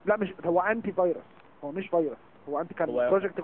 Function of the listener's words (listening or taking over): listening